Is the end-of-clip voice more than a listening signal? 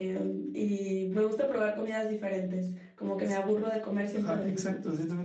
Yes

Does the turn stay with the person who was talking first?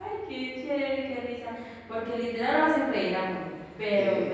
Yes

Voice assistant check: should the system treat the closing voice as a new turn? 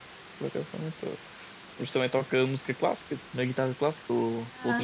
Yes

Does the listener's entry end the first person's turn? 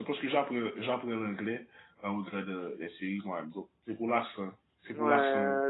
Yes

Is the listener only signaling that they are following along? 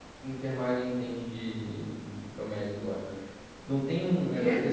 Yes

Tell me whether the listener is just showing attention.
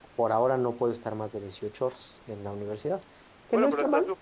No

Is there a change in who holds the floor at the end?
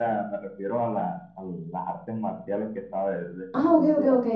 Yes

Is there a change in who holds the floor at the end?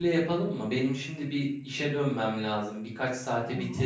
No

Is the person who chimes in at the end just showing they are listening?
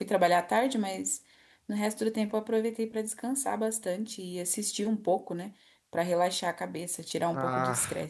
No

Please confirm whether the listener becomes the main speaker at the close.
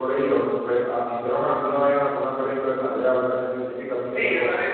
Yes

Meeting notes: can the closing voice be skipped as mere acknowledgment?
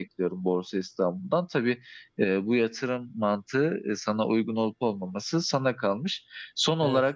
Yes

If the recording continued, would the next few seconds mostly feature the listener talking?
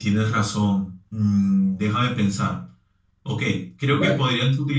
No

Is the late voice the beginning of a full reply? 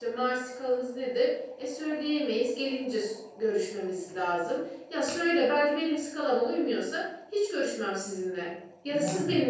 No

